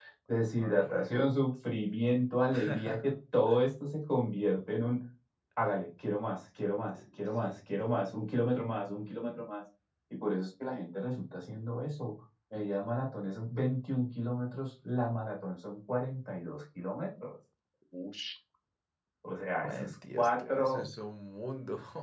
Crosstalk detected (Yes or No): Yes